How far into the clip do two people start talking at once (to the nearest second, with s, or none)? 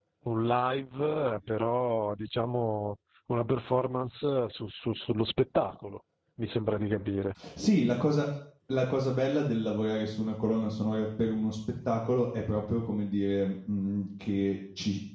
none